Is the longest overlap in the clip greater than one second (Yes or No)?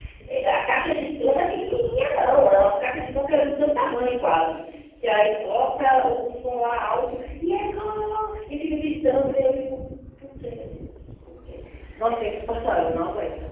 No